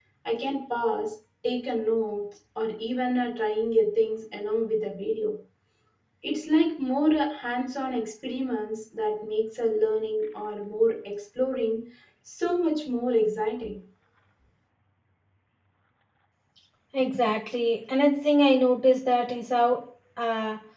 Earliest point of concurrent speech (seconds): none

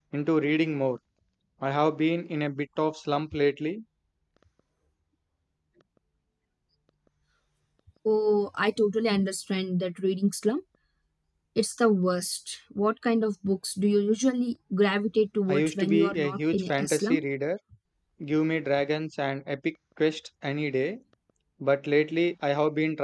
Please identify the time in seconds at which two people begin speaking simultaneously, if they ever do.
15.5 s

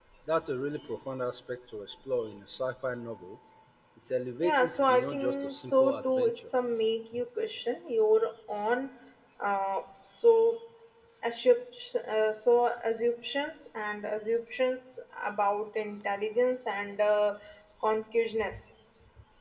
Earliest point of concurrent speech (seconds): 4.4 s

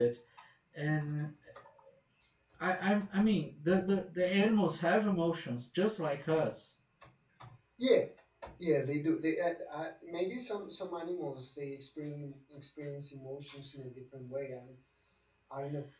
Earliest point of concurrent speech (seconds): none

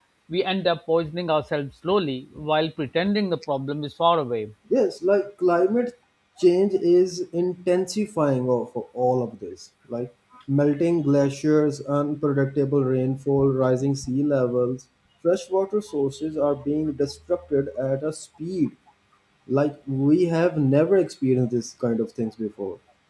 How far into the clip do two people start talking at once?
none

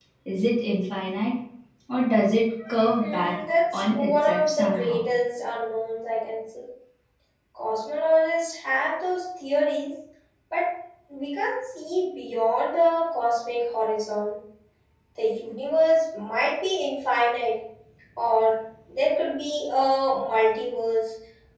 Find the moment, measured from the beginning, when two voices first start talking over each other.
3.0 s

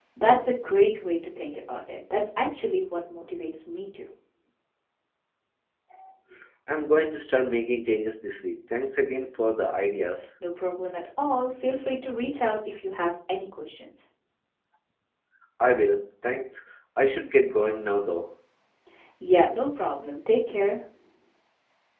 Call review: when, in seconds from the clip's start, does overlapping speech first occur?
none

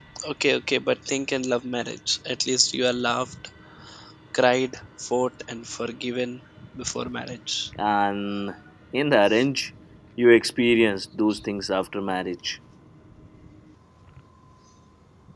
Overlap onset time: none

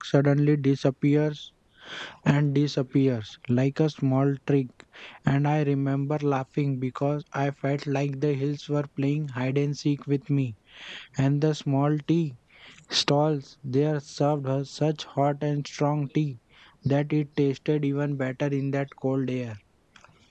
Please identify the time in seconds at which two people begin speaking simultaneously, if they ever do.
none

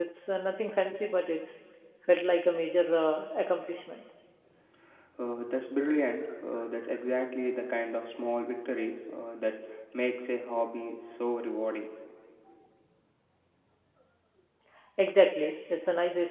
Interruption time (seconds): none

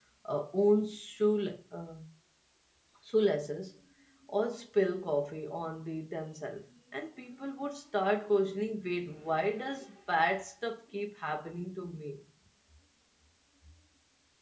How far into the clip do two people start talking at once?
none

